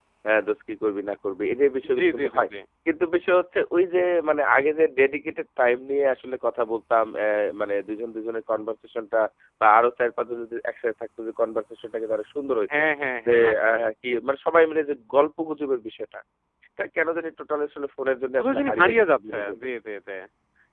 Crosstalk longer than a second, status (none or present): present